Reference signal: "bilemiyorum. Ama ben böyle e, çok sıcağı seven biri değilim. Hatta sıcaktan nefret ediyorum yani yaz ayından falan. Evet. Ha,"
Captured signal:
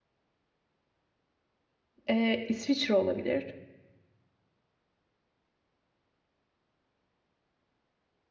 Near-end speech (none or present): present